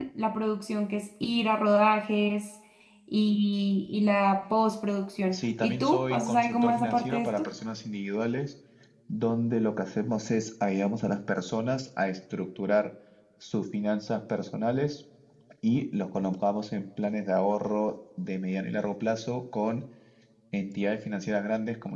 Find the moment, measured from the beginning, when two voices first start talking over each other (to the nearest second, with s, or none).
5 s